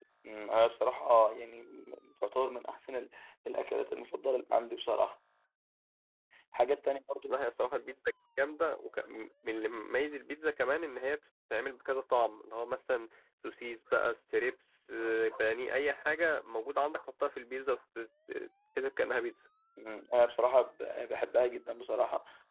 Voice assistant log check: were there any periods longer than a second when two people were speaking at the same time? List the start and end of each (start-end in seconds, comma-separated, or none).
none